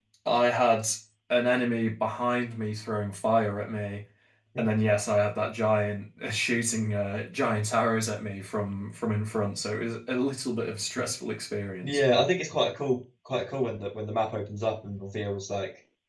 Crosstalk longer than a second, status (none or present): none